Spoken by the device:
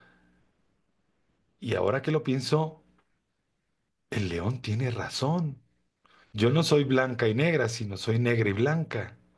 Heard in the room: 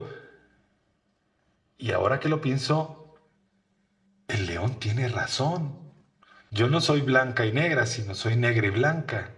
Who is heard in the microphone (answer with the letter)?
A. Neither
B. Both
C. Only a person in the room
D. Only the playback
D